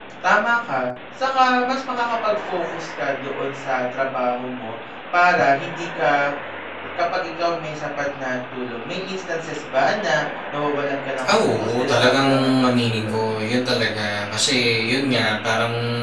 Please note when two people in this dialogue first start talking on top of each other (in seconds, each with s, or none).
11.2 s